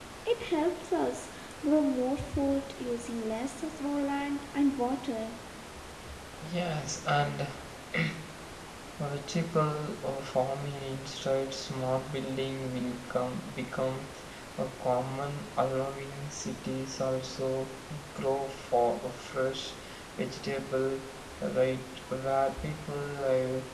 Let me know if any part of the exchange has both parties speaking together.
No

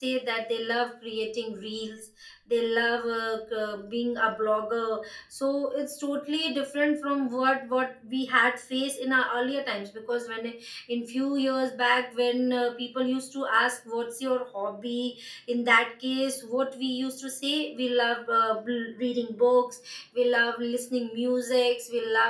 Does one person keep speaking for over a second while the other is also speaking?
No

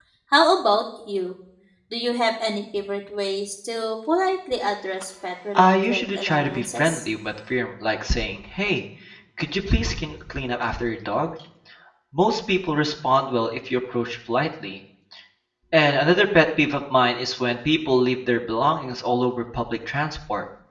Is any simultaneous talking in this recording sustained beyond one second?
Yes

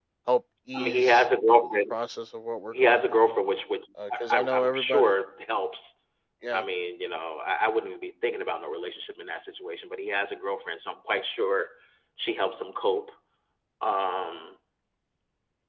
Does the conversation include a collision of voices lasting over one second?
Yes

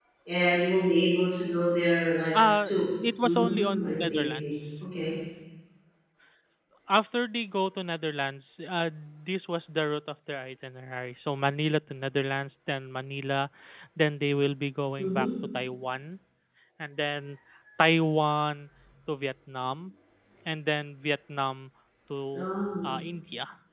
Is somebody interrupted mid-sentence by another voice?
Yes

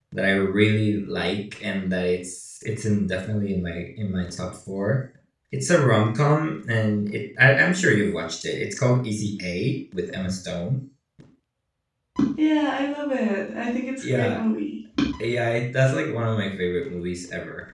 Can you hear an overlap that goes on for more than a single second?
No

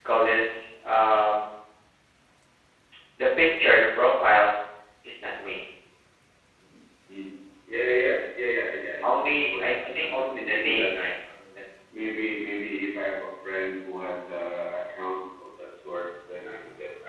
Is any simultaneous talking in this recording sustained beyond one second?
Yes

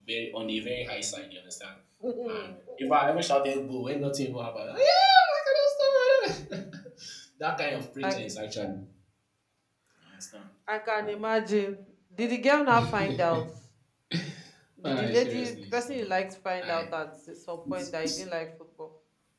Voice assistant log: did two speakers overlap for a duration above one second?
Yes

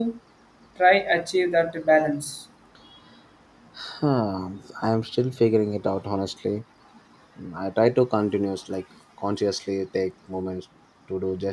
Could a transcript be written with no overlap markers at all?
Yes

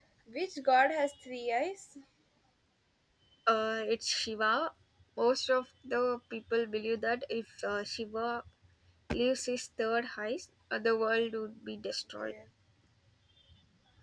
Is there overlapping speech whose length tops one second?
No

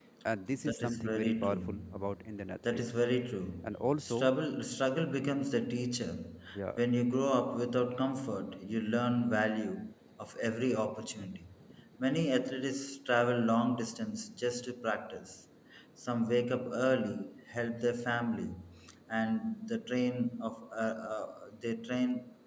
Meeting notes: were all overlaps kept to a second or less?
No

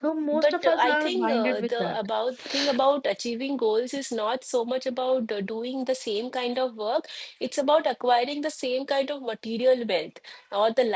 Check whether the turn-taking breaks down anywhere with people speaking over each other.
Yes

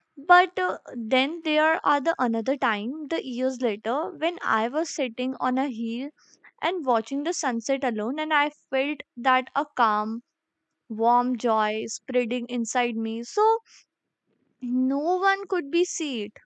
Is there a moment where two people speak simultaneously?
No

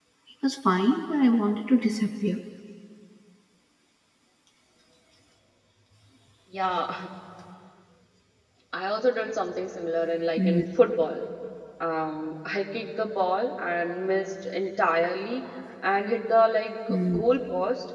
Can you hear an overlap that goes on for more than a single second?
No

